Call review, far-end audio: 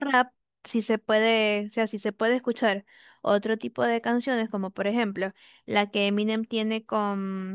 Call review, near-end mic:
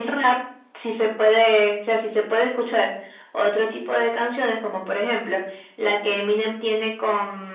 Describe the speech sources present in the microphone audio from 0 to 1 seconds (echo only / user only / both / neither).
echo only